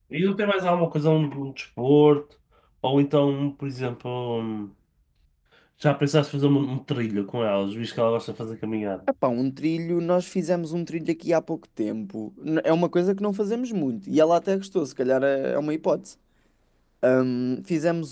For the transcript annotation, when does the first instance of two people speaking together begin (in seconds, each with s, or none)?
none